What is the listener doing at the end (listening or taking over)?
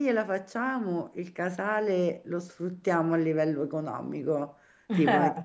listening